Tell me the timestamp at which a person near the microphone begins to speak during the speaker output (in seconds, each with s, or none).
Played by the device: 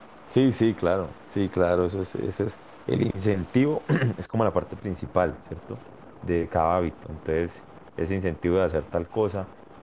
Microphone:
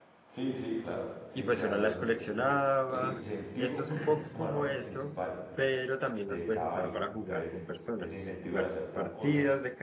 1.3 s